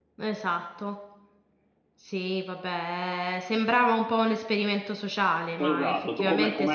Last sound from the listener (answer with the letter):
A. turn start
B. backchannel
A